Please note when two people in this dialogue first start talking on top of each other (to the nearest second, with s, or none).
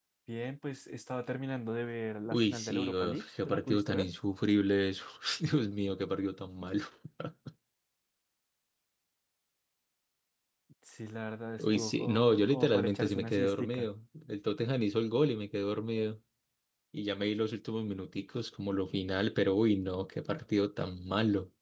2 s